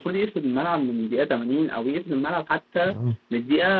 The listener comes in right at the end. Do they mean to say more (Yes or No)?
No